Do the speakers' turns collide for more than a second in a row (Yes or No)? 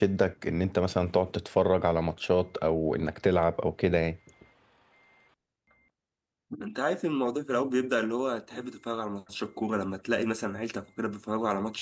No